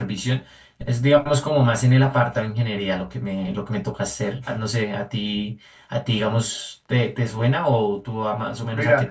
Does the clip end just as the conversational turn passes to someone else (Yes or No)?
Yes